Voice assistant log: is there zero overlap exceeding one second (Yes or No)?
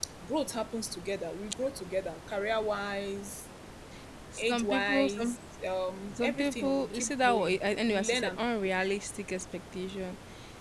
No